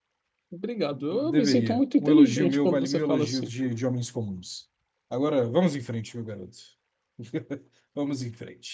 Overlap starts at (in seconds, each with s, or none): 0.9 s